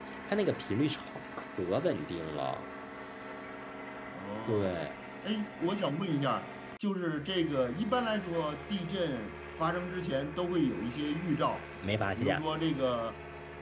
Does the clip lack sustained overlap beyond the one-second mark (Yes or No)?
Yes